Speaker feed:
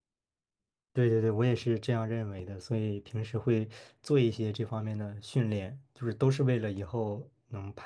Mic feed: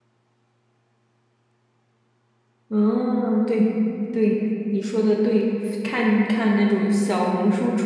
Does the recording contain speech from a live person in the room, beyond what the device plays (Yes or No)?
Yes